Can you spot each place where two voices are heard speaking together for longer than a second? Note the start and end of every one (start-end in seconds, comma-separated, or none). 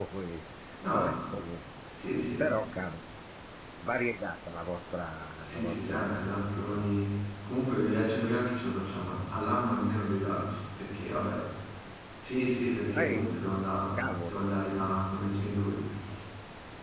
5.4-6.9